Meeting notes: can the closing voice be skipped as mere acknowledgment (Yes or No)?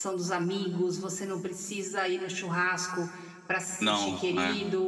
Yes